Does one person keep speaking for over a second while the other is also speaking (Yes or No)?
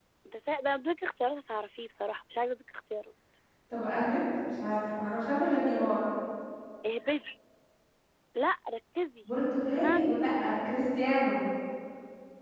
No